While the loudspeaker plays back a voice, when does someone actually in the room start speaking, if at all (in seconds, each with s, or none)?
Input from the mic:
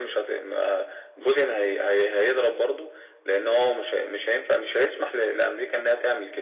none